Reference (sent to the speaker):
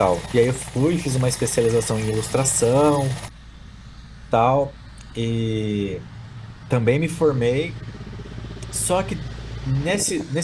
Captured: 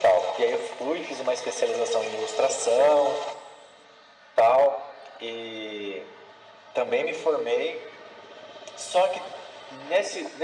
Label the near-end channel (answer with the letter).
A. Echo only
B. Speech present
A